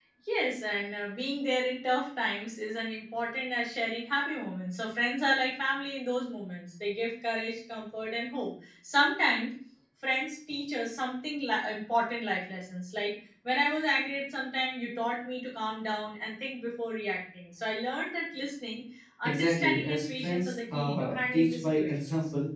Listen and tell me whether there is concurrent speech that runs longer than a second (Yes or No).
Yes